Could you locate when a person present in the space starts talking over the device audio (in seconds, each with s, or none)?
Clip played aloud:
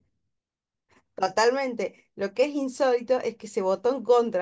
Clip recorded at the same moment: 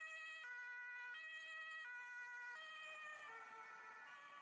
none